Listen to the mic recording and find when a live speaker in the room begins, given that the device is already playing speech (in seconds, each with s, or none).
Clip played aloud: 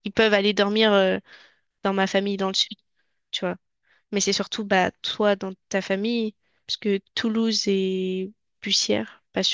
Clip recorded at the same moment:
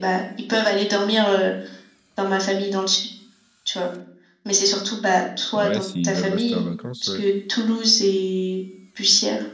5.6 s